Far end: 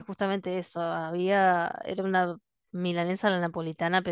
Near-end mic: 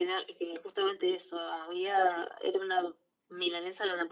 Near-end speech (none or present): none